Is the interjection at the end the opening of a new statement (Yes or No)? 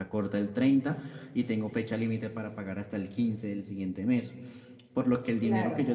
No